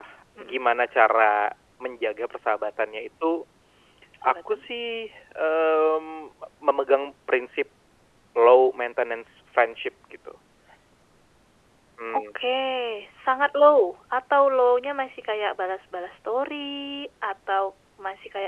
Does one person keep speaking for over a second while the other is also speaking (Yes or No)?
No